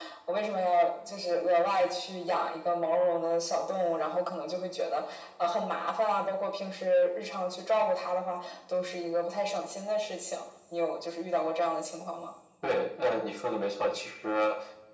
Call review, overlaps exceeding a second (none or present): none